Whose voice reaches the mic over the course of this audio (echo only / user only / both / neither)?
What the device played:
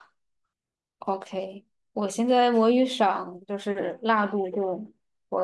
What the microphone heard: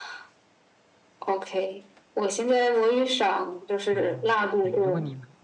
both